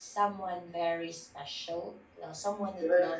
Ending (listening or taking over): taking over